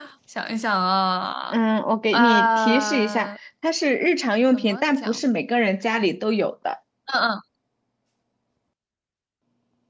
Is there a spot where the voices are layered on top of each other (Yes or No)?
Yes